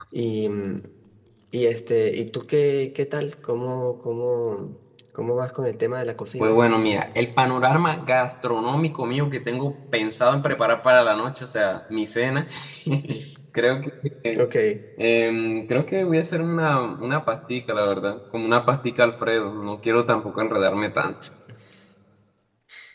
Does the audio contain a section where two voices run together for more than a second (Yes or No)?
No